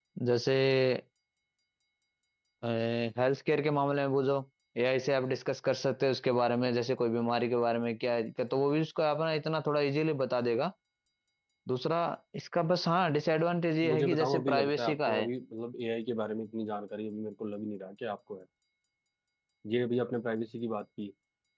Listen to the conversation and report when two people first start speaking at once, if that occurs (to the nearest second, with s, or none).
14 s